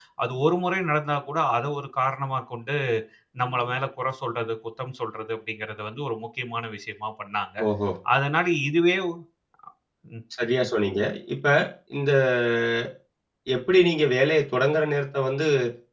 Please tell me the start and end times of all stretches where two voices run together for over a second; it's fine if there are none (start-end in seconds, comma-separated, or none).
none